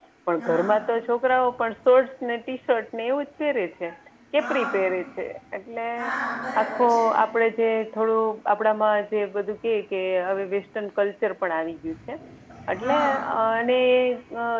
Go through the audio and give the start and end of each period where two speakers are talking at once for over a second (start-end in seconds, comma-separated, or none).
none